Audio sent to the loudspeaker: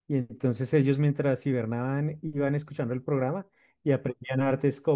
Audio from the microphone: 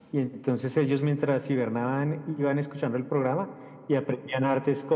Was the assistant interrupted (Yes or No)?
No